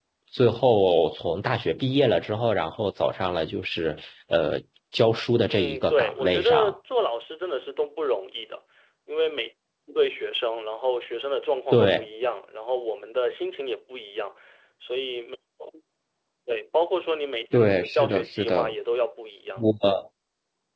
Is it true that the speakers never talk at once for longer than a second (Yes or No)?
No